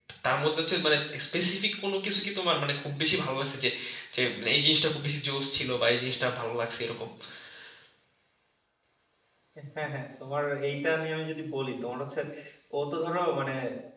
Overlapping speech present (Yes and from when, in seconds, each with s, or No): No